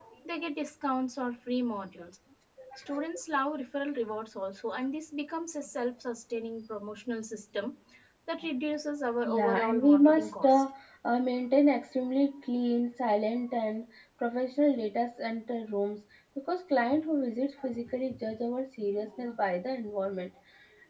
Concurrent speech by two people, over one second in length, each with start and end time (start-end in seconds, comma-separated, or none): 9.2-10.5